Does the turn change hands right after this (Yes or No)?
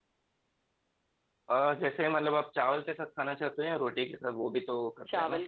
Yes